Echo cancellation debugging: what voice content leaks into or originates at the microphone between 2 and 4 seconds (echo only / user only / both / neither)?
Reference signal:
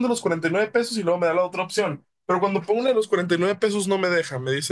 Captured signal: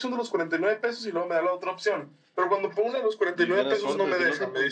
both